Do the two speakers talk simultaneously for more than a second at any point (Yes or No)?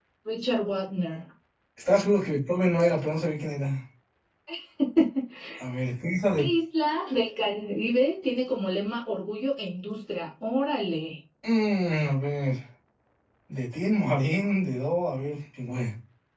No